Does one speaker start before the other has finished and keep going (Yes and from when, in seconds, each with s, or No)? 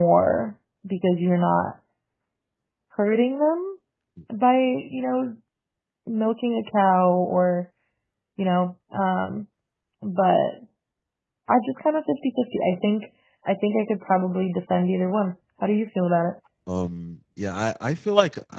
No